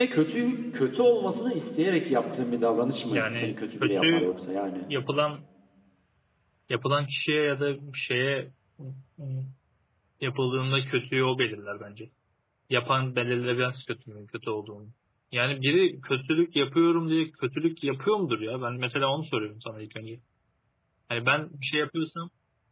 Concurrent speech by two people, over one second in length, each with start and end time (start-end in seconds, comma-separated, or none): 3.1-4.3